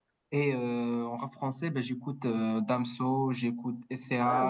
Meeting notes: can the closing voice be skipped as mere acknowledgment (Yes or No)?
Yes